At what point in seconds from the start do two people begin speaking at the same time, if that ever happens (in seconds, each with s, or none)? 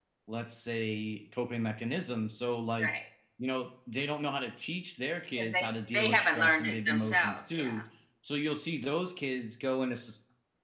5.4 s